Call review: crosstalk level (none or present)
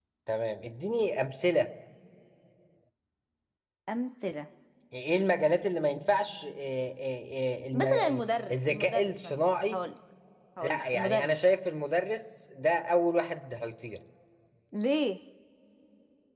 present